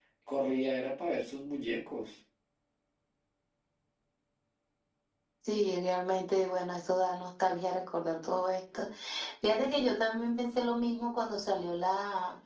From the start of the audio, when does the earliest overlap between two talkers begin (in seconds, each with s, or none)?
none